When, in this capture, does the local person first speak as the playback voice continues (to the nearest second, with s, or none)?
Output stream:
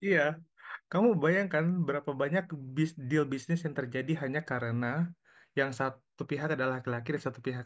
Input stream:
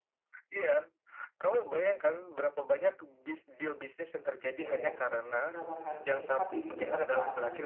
5 s